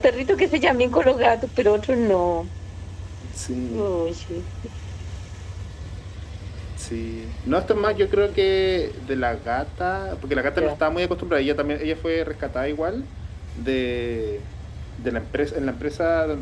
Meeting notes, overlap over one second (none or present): none